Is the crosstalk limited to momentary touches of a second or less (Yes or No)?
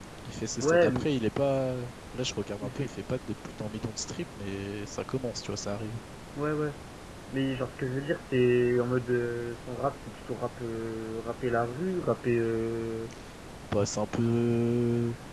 Yes